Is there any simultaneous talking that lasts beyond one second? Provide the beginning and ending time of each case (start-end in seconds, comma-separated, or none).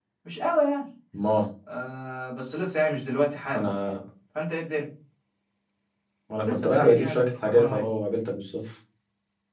6.5-7.9